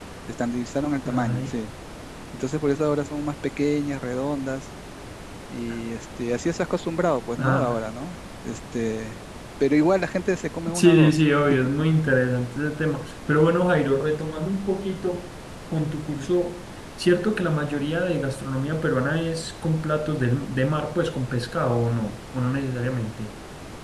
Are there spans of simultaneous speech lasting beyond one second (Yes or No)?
No